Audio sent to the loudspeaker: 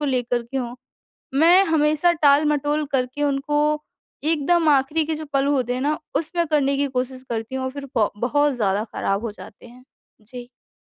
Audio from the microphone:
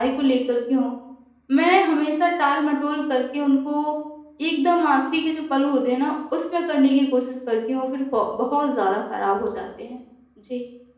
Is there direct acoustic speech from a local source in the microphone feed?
No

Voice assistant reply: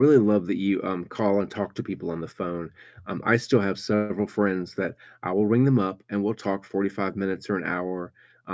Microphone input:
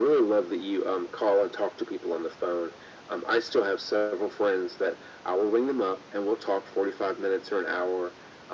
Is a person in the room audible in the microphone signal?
No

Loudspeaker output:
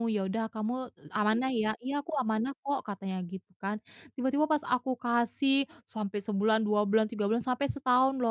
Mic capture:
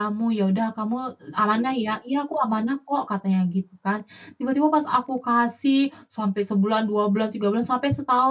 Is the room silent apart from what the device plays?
Yes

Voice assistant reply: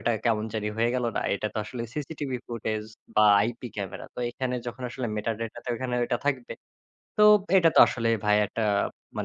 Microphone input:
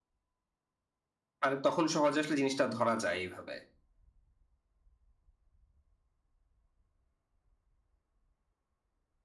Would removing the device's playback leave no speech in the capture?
No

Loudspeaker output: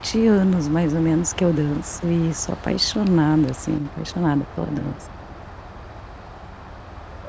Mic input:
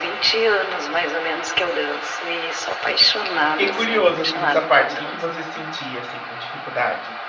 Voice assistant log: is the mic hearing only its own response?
No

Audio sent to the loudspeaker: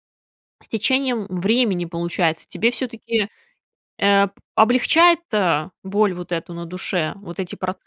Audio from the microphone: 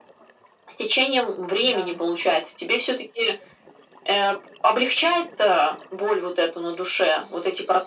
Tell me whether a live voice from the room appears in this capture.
Yes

